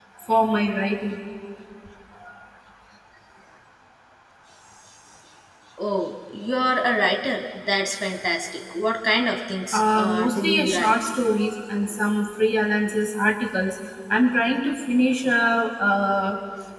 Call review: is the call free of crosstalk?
No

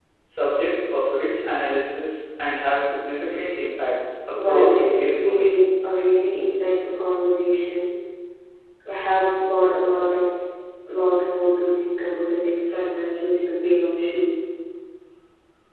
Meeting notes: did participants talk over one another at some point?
Yes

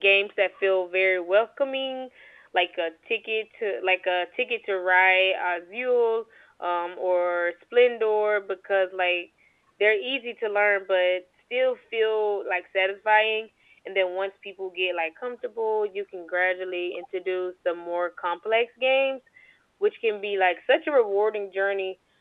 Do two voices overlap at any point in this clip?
No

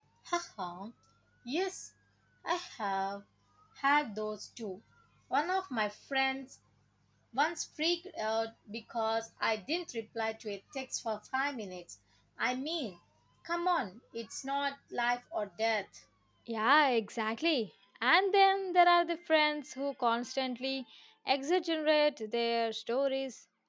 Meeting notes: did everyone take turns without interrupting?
Yes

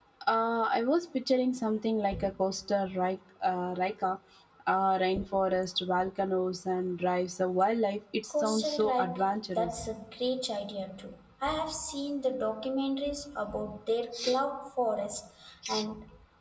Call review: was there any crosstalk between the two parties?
Yes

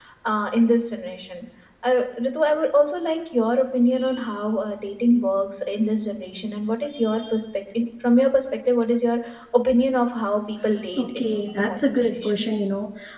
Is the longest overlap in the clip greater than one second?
Yes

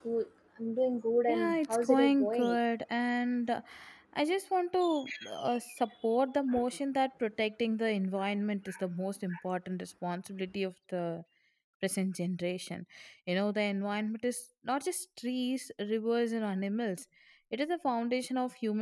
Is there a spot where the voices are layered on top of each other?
Yes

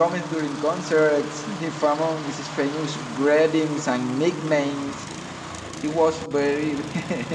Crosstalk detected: No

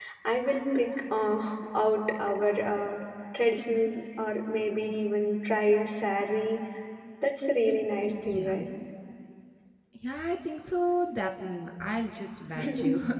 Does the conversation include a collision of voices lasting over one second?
No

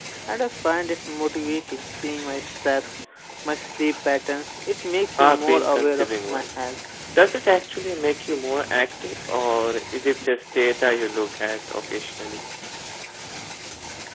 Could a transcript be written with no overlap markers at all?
No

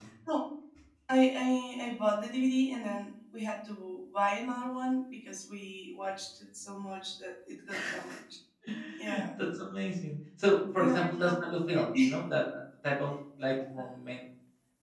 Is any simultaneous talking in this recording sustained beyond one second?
Yes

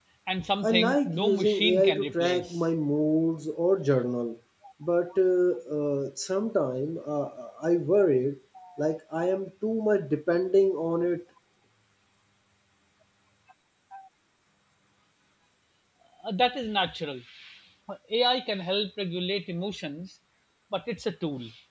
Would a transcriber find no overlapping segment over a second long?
No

